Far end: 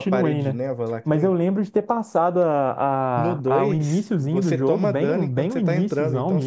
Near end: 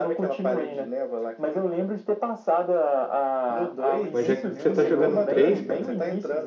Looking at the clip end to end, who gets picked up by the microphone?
both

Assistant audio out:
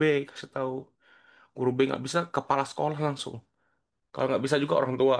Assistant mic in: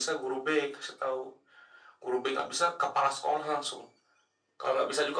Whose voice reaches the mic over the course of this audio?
echo only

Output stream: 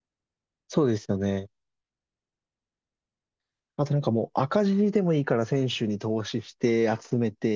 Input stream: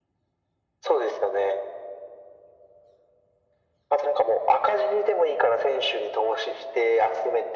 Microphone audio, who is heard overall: echo only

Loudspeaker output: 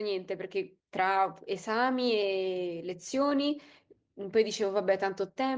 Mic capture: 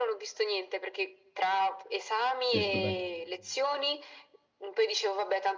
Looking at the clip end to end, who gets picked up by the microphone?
both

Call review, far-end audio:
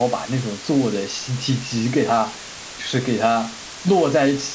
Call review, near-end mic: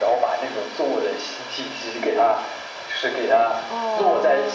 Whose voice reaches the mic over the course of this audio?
both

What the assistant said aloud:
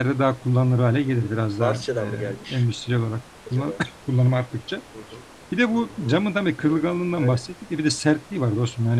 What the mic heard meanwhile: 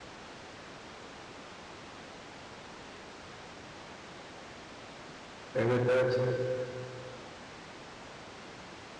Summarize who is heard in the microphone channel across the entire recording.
user only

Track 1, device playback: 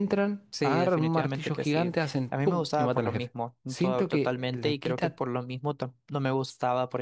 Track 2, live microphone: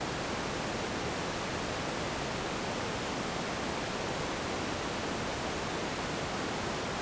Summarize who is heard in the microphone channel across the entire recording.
neither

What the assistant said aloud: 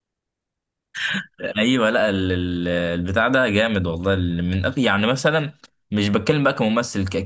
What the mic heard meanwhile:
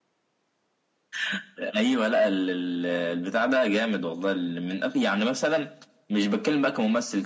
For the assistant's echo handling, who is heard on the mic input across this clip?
echo only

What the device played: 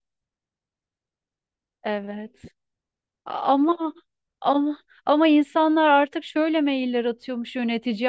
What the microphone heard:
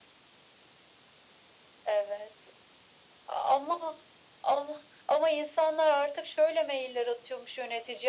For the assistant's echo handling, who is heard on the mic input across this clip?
echo only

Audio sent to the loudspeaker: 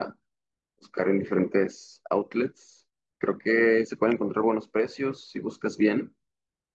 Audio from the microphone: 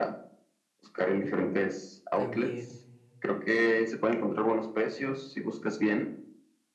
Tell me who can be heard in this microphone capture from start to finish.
both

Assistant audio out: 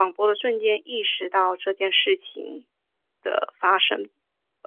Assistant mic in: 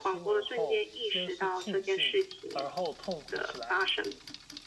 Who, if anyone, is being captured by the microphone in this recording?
both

